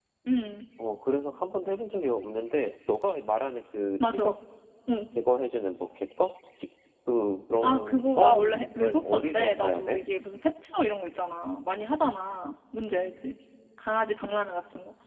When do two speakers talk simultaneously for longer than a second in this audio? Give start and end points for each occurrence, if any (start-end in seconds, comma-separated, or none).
7.6-10.0